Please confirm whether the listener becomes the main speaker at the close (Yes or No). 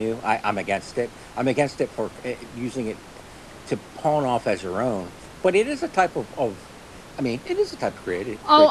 Yes